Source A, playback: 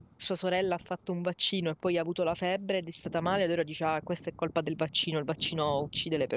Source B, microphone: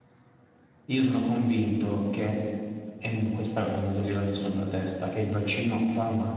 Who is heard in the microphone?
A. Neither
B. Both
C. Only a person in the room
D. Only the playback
C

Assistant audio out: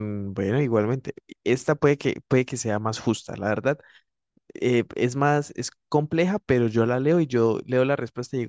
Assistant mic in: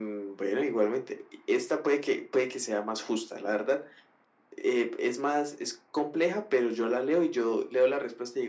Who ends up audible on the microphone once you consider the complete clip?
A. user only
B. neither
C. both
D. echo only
D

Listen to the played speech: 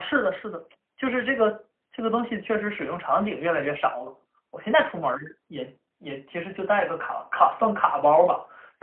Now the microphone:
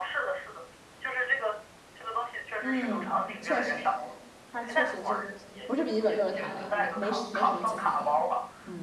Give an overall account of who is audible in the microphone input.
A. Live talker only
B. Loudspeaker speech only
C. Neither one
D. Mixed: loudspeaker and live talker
D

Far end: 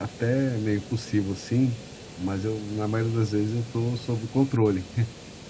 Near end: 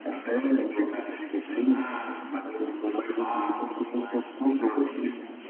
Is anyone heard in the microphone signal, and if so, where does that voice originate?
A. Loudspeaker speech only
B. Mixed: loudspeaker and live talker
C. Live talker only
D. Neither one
B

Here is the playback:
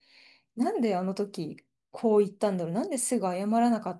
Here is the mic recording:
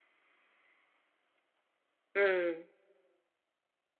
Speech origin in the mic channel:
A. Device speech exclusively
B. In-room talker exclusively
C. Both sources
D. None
B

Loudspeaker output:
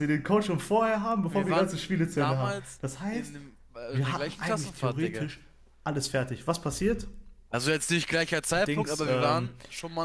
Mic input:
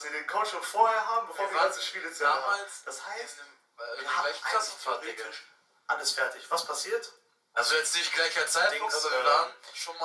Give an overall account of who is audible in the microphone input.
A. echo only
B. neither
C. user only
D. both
A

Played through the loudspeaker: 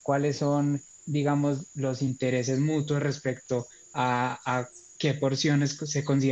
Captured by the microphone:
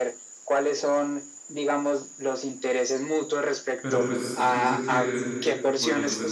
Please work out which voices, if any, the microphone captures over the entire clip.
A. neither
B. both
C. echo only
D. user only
B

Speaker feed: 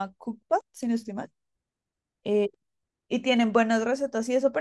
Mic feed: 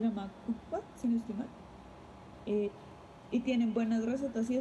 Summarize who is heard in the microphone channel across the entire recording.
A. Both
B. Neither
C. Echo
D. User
C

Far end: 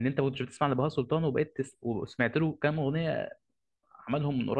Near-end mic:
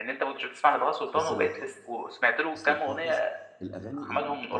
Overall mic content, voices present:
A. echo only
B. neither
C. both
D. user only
C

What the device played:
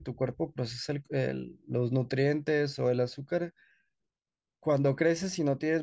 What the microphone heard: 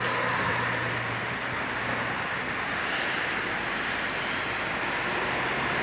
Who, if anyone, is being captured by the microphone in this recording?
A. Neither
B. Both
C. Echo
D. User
A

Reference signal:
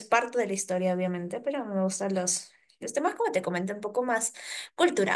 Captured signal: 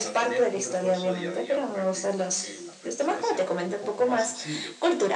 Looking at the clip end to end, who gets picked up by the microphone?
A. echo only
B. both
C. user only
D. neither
B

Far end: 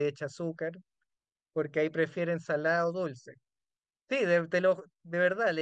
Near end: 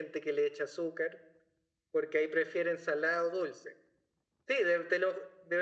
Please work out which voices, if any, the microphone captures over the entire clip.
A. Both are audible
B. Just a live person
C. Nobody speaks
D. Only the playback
D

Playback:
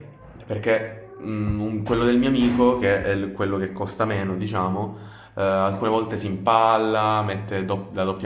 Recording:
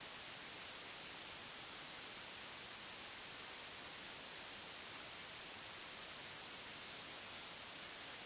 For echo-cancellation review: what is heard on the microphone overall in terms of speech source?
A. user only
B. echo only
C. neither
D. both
C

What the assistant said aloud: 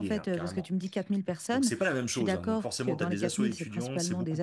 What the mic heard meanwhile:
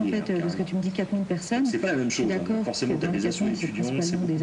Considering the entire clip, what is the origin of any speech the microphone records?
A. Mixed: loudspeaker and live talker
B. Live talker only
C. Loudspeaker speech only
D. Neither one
C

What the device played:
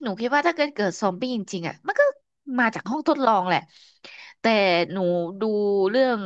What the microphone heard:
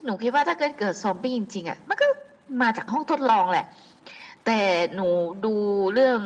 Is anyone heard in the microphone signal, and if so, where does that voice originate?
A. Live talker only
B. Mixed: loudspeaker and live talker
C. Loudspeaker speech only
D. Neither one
C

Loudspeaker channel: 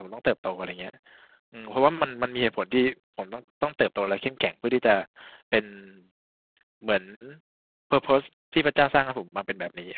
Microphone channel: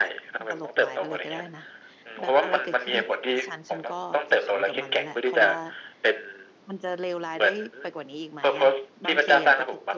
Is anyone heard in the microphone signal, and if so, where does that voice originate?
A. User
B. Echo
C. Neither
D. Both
D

